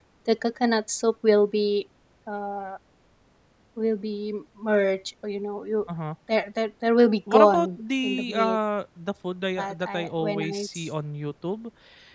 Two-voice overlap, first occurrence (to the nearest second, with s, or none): 7 s